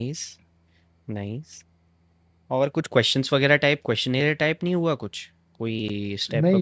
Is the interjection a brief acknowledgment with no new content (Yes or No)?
No